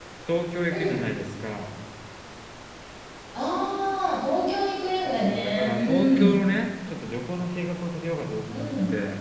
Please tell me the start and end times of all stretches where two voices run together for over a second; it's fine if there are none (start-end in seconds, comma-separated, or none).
5.0-6.4